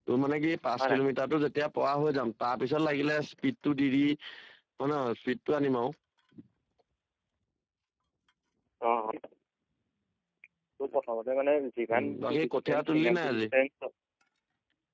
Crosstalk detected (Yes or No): Yes